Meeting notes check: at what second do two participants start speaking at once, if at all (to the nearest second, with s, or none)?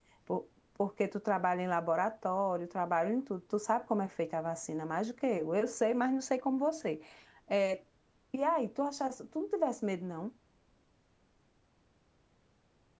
none